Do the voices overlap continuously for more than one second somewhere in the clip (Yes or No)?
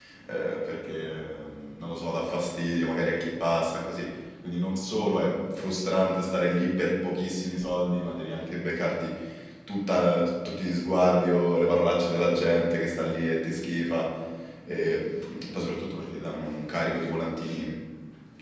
No